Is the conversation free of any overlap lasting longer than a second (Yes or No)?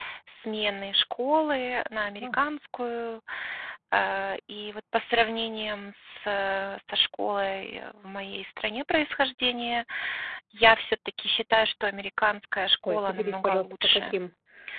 No